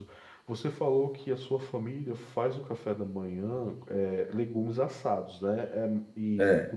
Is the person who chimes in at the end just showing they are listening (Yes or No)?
Yes